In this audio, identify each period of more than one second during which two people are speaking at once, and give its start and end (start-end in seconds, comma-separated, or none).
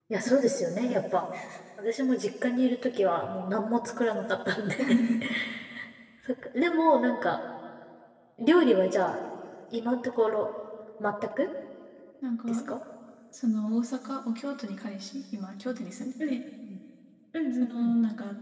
none